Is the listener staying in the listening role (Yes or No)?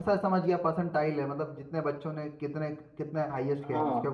No